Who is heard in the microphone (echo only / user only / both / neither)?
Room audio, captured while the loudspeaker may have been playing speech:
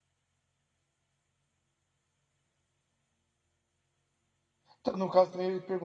user only